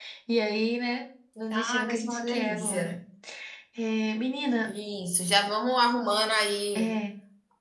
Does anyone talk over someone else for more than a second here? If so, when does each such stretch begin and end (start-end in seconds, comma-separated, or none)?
1.5-3.0